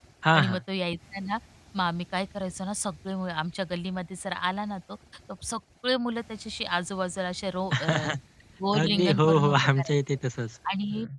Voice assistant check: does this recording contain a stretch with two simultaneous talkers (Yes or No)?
Yes